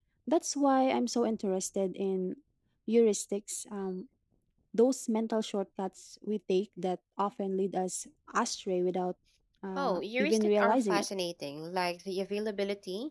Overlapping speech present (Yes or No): Yes